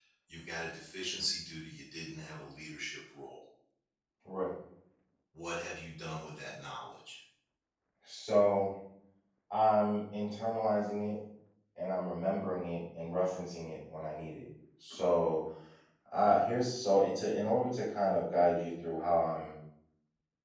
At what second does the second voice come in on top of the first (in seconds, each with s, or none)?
none